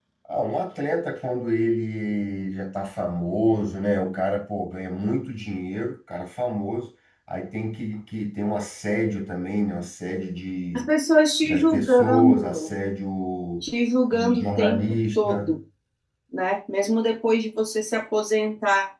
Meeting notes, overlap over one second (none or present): present